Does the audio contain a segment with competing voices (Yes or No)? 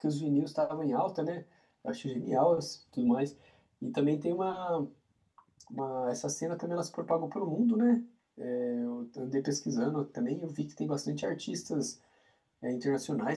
No